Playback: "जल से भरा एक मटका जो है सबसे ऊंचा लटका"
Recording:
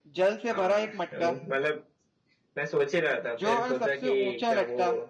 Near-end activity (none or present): present